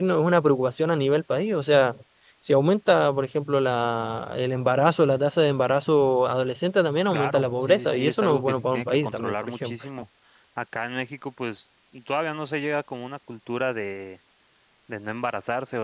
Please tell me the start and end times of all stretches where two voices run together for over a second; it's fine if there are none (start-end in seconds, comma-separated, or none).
7.1-9.8